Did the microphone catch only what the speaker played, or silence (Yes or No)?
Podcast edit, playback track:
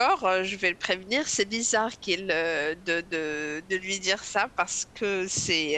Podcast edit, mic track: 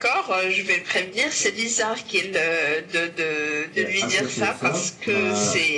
No